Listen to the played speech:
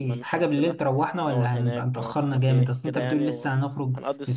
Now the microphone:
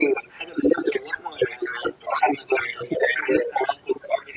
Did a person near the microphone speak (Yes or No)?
No